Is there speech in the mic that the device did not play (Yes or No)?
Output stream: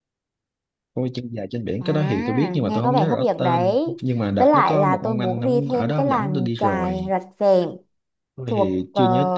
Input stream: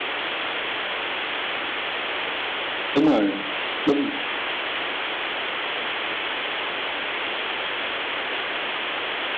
Yes